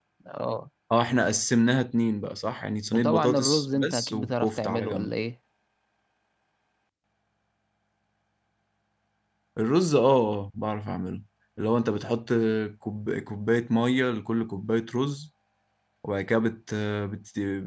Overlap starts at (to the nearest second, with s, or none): 3 s